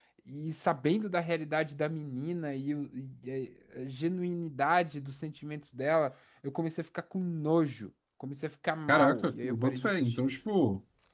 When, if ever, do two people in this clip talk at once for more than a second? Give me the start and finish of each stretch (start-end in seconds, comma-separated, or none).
8.9-10.2